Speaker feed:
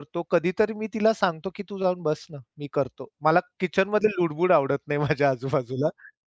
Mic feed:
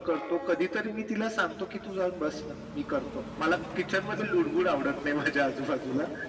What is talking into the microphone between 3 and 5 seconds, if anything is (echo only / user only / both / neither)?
echo only